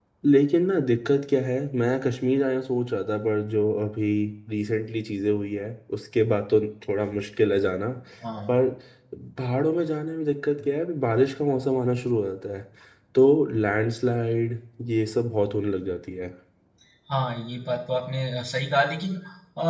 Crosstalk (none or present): none